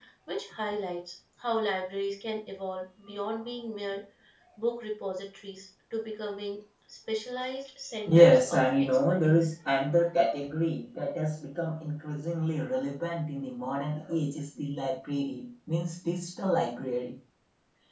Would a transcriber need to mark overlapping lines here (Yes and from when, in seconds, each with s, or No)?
Yes, from 8.1 s